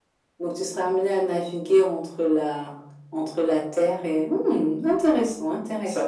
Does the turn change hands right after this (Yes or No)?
Yes